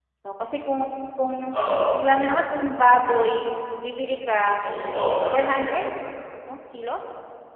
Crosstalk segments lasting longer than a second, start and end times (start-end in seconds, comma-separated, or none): none